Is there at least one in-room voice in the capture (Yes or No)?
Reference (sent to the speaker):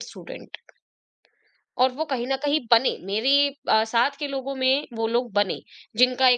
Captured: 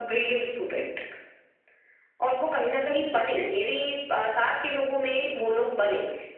Yes